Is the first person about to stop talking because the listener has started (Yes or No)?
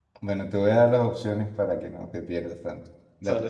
No